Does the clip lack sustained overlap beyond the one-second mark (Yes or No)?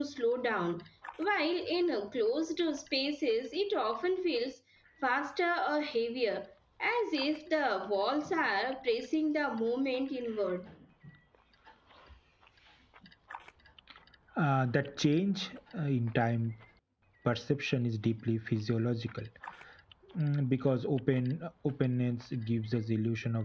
Yes